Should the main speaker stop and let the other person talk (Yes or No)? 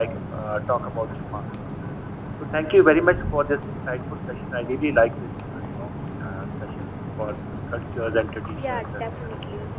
Yes